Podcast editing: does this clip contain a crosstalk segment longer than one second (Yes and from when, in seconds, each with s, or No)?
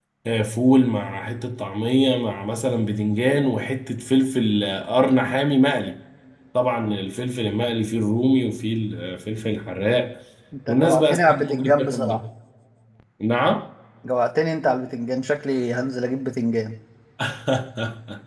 Yes, from 10.7 s